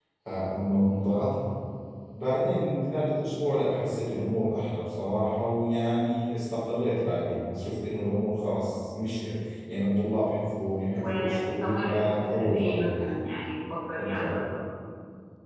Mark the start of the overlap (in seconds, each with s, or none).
11.0 s